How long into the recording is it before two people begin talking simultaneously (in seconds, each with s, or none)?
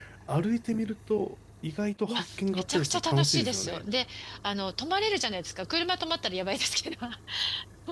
2.1 s